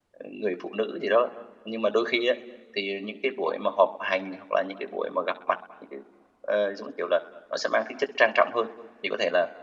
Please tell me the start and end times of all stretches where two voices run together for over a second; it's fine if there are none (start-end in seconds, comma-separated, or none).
none